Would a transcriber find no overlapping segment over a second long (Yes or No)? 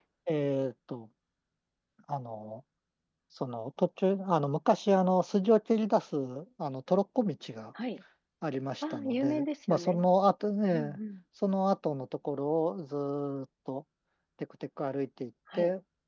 No